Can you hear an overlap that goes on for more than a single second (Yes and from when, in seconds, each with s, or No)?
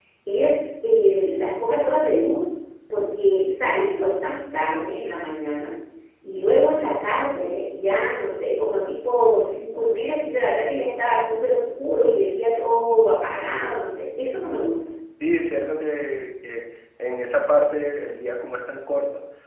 No